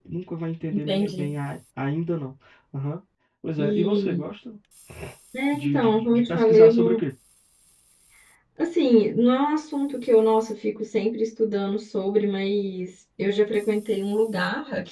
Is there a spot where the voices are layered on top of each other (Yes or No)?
Yes